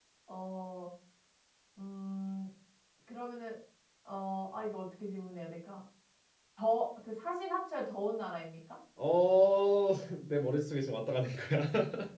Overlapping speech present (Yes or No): No